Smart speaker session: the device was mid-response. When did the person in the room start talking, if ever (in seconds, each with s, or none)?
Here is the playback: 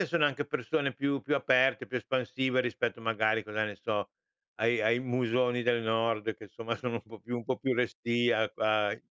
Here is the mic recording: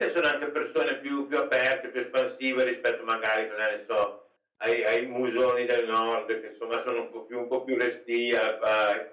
none